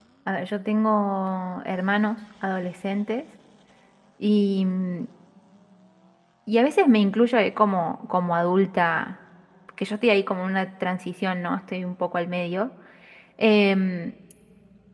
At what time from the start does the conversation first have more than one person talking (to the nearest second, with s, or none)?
none